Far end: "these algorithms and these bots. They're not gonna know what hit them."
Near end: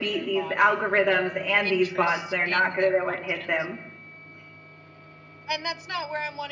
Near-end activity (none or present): present